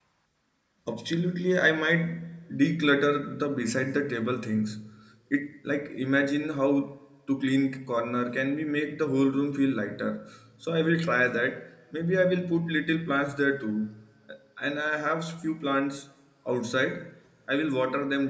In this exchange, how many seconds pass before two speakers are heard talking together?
none

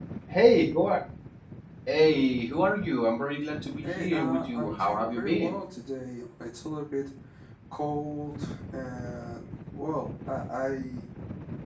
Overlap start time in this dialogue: 3.8 s

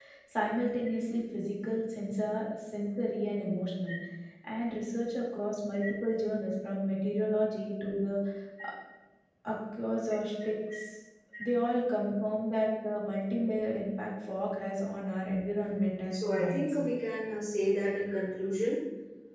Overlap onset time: 15.5 s

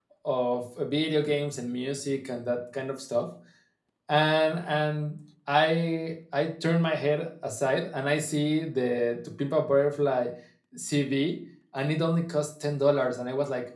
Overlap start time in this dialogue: none

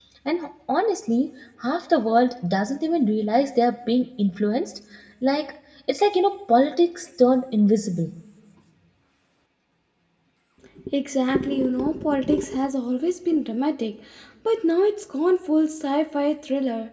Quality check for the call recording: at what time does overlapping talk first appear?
none

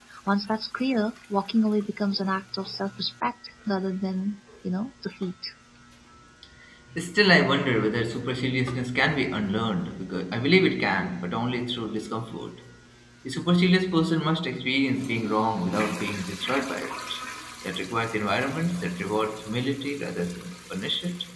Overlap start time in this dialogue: none

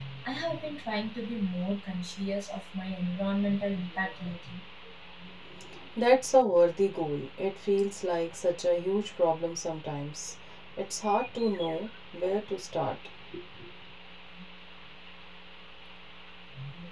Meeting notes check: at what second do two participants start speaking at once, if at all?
none

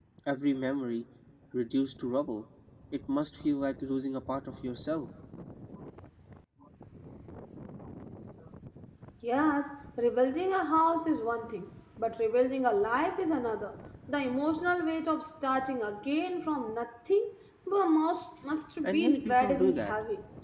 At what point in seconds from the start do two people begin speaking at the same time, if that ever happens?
18.8 s

